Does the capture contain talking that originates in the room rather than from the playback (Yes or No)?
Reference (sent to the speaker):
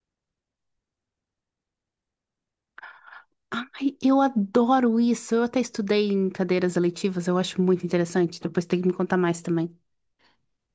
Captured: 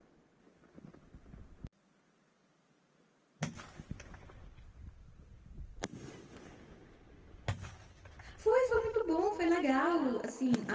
Yes